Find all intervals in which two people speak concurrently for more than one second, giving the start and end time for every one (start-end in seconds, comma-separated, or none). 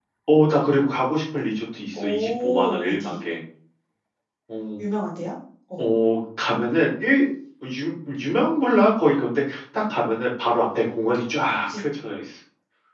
1.9-3.2